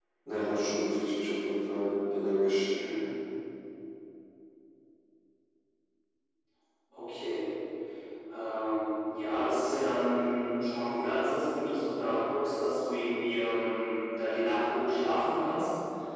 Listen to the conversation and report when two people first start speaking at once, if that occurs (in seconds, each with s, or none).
none